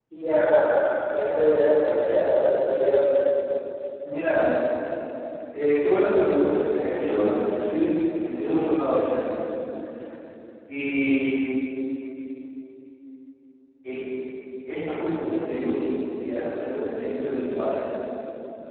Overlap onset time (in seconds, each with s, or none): none